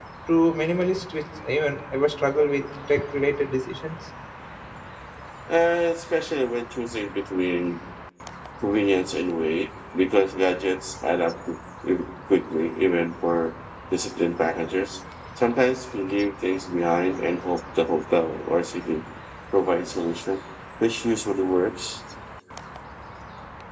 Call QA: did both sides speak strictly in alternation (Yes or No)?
Yes